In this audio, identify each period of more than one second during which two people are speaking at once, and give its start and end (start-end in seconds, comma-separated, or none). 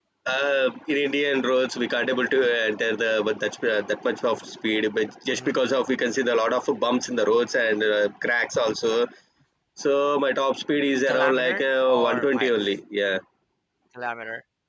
11.1-12.5